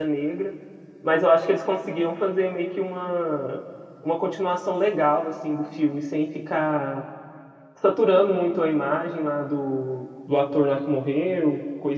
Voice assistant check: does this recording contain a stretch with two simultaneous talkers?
No

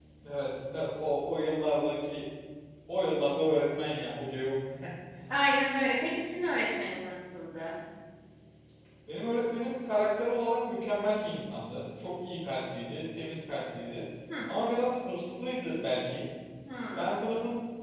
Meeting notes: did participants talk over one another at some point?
No

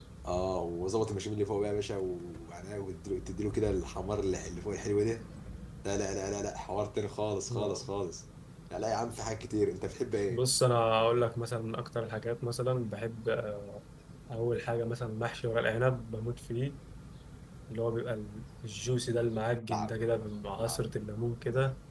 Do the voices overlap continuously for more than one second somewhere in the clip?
No

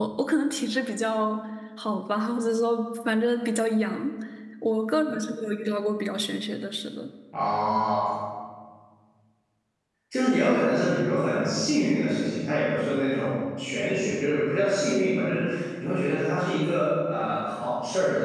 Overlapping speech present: No

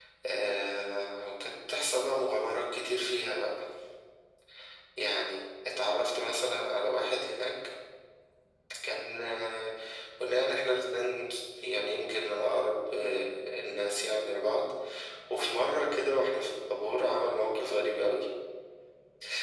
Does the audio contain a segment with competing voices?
No

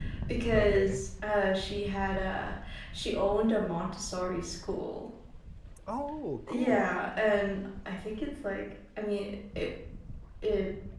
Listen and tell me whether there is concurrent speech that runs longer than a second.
No

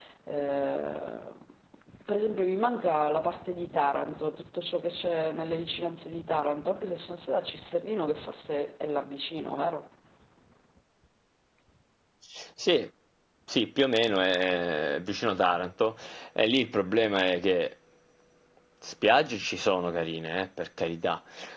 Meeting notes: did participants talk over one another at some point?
No

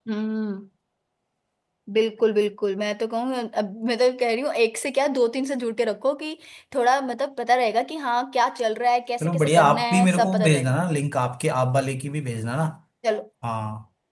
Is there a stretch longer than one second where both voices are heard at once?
Yes, from 9.2 s

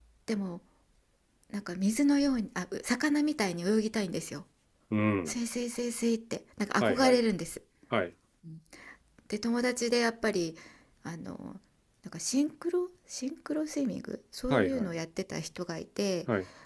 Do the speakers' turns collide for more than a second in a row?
No

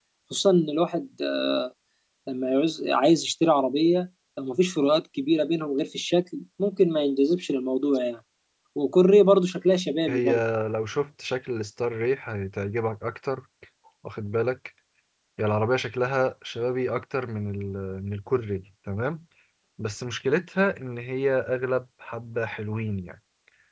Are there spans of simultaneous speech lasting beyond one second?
No

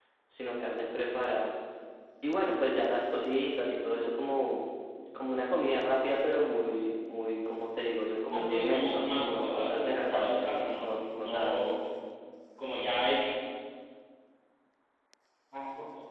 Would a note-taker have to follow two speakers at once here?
Yes, from 8.3 s

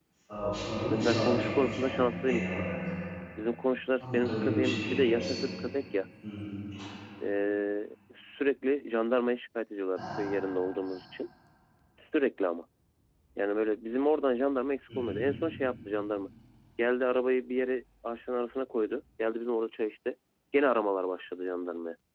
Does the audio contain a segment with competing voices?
Yes, from 0.9 s

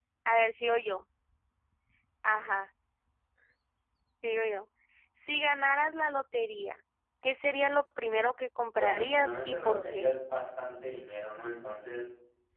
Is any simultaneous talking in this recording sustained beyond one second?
Yes, from 8.7 s

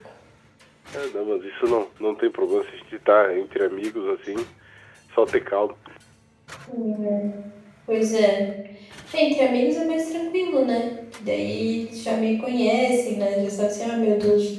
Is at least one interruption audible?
No

